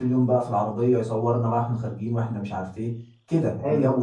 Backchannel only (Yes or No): No